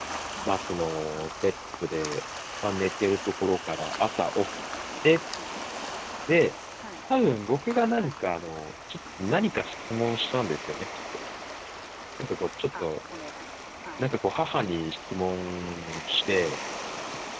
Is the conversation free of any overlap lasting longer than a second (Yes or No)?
Yes